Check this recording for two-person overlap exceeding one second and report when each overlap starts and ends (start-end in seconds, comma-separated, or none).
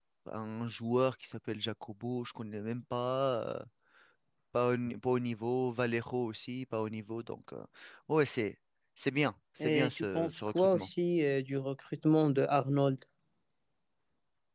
9.6-10.9